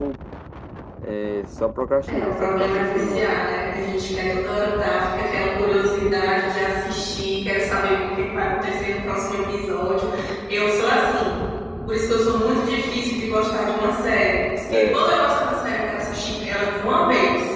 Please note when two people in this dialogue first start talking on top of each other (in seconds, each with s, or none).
2.1 s